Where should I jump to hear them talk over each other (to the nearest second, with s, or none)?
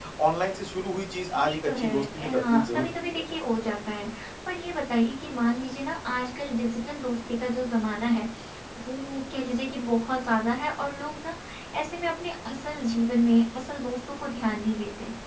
1 s